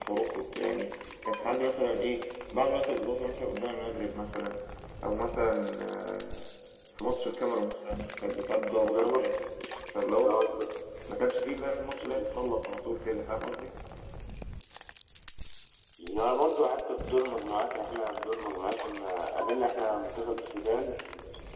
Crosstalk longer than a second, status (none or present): none